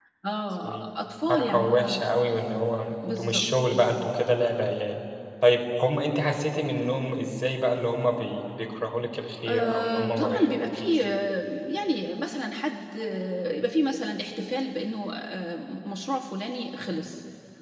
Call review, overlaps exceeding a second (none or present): present